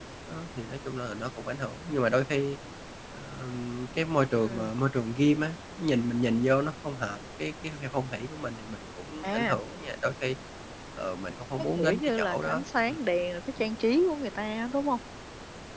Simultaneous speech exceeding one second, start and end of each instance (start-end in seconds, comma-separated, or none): 11.6-13.0